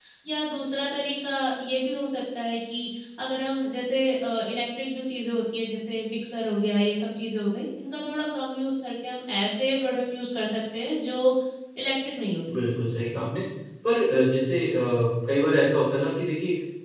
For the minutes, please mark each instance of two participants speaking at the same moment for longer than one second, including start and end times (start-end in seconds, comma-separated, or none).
none